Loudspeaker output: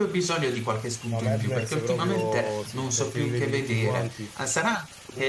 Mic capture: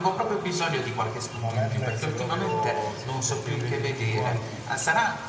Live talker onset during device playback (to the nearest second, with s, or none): none